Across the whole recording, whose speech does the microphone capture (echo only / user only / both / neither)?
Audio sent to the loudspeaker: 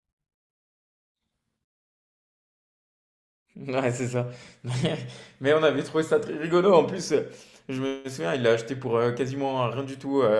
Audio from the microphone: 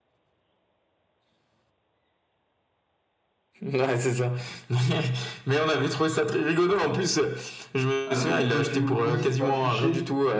both